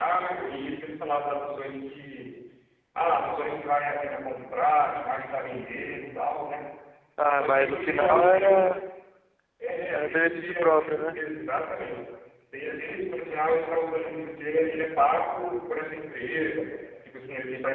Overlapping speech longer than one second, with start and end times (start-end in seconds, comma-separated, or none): 7.3-8.6, 9.9-11.2